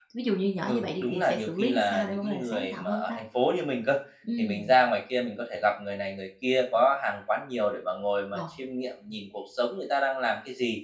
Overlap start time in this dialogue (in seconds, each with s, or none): 0.7 s